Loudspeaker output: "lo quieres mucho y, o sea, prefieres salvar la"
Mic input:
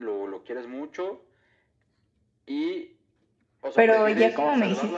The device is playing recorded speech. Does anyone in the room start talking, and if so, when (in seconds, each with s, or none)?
3.7 s